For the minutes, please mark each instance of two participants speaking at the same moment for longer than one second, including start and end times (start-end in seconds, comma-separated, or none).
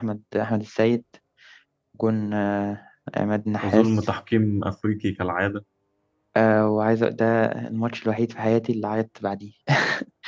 none